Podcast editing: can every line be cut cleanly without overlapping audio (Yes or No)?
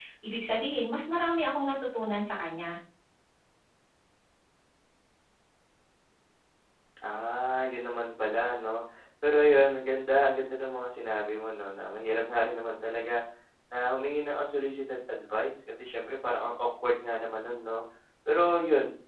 Yes